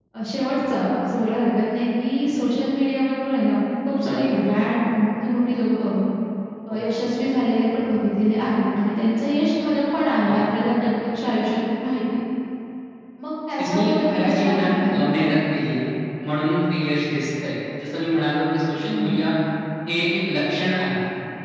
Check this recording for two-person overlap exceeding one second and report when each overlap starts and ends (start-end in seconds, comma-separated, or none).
13.6-15.0